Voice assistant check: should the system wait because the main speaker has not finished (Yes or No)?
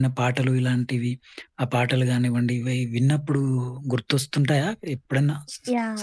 No